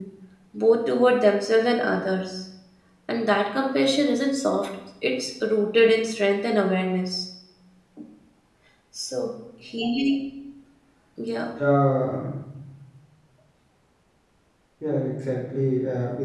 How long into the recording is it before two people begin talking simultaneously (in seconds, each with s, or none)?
none